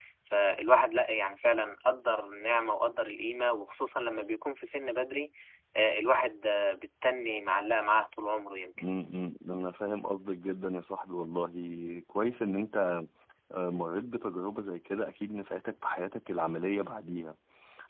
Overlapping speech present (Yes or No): No